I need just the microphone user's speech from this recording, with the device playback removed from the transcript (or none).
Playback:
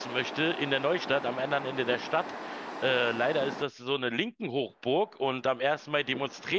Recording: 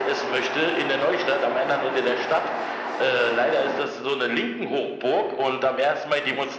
none